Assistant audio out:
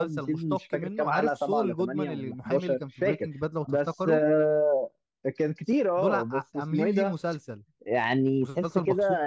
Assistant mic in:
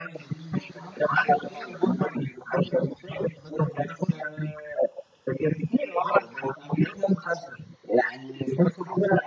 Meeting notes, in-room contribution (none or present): none